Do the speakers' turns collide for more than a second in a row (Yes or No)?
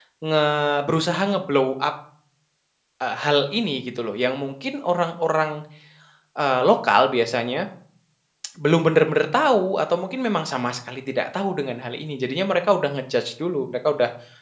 No